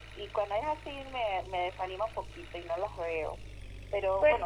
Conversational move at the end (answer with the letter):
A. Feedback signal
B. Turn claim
A